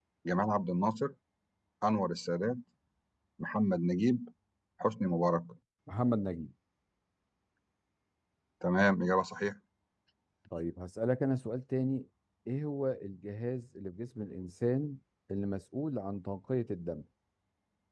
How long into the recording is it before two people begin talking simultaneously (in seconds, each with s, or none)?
none